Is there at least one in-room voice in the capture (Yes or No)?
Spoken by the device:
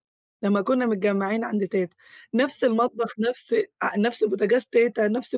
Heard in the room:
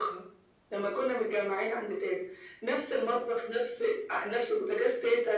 No